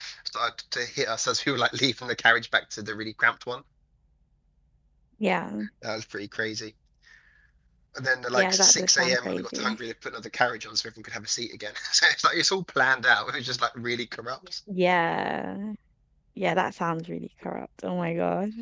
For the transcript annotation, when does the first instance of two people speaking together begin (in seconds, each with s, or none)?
8.3 s